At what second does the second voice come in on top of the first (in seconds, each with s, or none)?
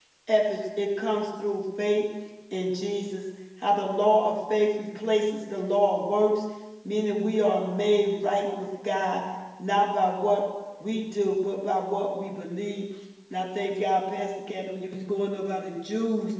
none